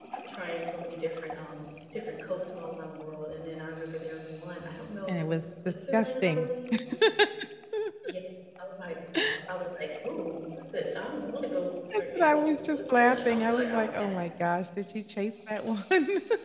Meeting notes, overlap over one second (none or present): present